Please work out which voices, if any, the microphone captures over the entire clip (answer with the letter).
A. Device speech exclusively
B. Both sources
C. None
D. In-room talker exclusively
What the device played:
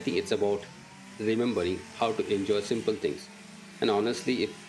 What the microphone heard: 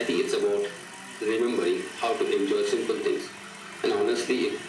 A